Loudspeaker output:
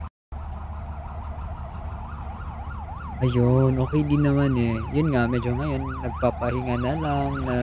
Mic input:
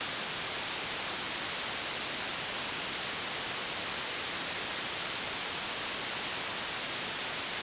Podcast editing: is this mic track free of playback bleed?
Yes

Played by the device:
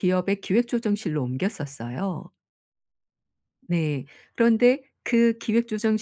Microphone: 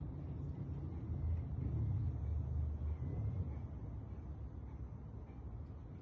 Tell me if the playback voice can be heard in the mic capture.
No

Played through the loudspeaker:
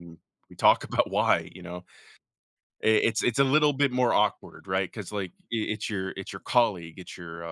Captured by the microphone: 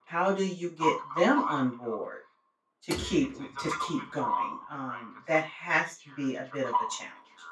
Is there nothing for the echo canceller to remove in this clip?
No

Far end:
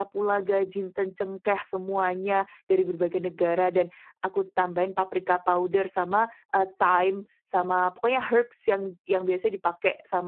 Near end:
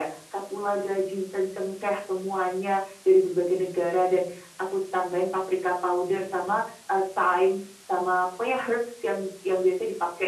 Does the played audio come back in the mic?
Yes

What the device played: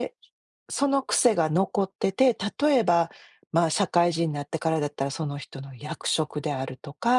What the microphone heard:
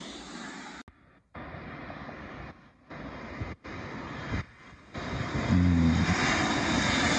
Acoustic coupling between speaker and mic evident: No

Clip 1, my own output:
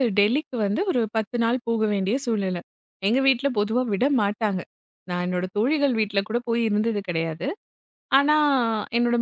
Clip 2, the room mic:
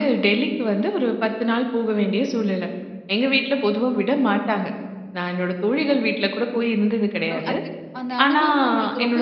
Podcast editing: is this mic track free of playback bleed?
No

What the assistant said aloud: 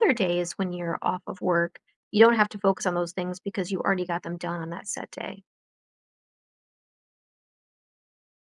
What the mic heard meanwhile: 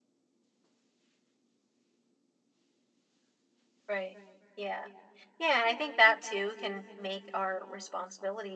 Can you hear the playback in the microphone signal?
No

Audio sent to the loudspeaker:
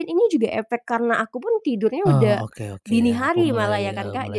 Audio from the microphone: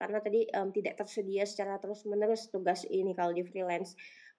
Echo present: No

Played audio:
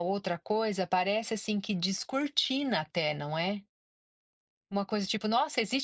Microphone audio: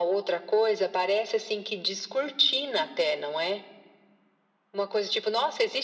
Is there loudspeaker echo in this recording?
Yes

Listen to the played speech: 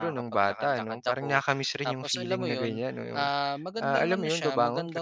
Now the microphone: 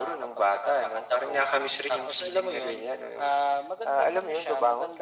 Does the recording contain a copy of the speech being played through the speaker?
Yes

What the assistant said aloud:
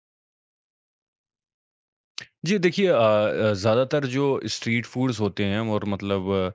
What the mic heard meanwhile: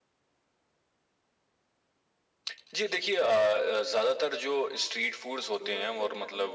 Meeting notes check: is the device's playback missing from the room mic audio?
No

